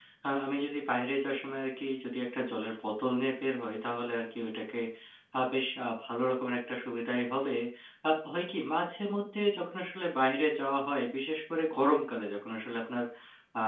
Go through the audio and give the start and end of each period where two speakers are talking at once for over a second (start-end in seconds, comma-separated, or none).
none